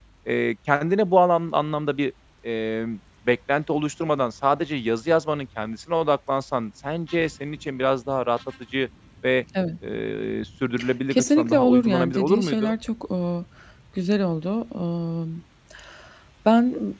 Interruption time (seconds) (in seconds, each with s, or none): 11.1 s